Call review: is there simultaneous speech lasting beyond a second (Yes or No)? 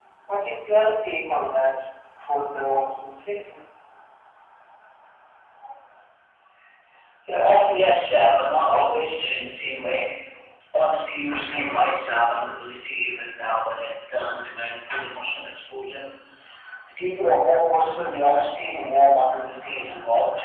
No